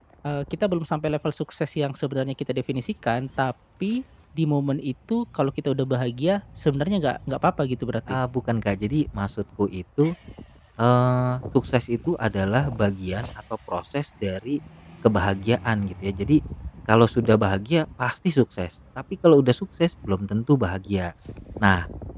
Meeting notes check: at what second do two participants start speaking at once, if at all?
none

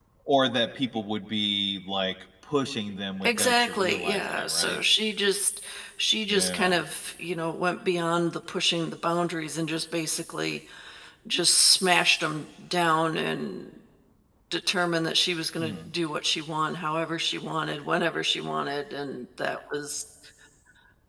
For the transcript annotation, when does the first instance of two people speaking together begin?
3 s

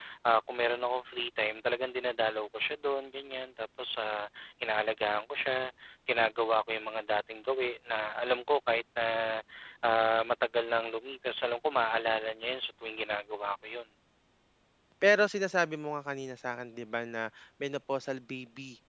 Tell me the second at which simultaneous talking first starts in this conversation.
none

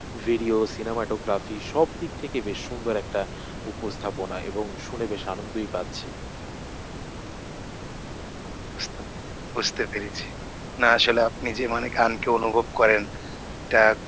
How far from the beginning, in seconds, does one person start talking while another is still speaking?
none

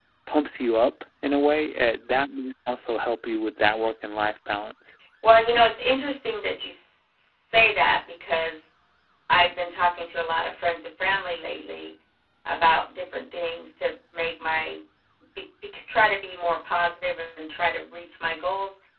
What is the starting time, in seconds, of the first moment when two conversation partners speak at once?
none

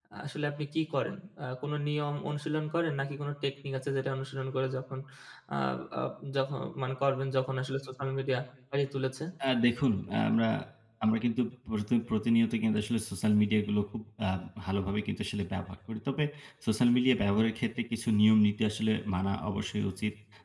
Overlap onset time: none

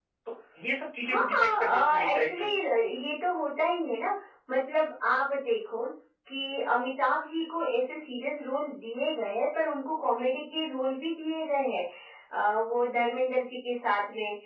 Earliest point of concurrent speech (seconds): 1 s

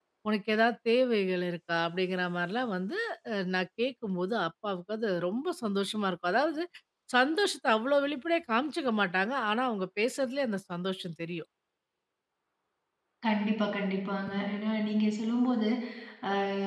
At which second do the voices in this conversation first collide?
none

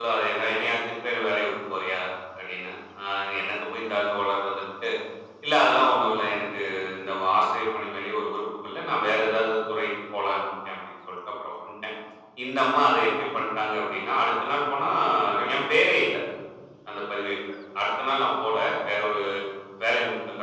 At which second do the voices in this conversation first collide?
none

